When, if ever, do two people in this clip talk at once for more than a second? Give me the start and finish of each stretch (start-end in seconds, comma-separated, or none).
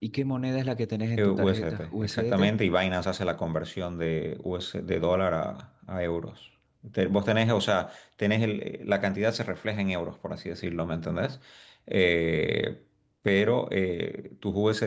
1.2-2.5